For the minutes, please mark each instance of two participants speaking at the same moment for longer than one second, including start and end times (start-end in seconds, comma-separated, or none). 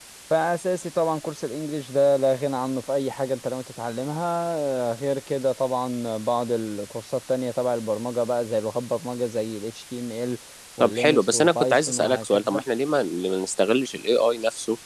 10.8-12.6